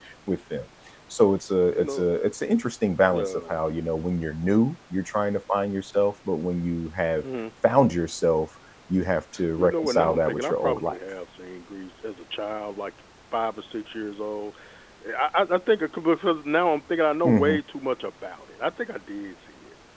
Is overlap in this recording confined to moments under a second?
No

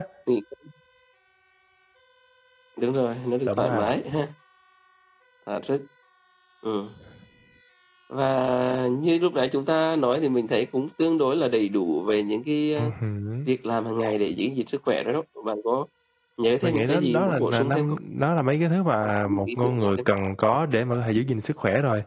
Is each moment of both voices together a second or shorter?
No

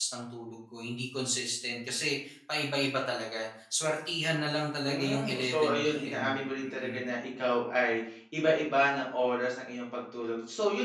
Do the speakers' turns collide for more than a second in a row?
Yes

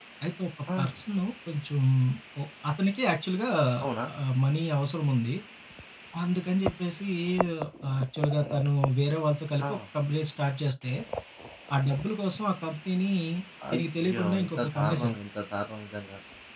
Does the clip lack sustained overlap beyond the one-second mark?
No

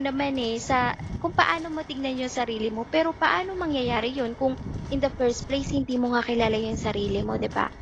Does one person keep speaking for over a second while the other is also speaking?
No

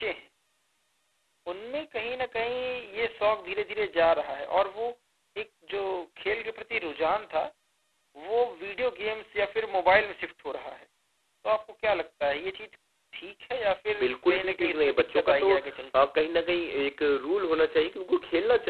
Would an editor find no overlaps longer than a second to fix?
No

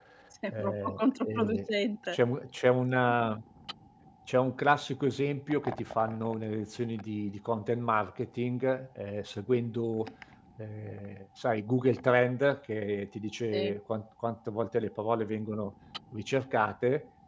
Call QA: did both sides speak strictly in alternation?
No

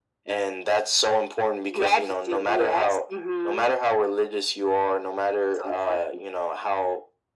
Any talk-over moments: Yes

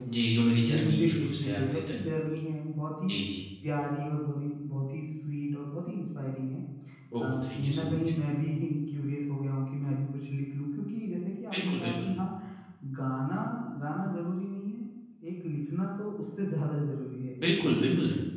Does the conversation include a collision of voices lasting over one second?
Yes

